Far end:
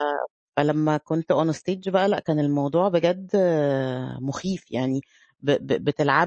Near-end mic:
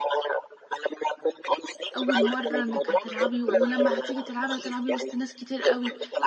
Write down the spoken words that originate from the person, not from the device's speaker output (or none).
أول مرّة إنك هتلعبي ولمّا هتيجي تلعبي هتلعبي وسط ناس كتير أوي،